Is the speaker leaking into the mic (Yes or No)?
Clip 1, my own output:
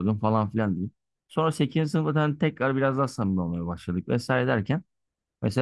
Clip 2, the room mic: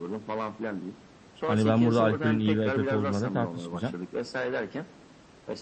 Yes